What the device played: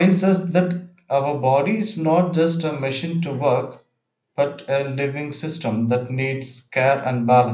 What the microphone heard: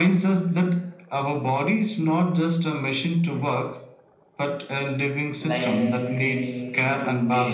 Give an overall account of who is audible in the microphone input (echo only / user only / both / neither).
both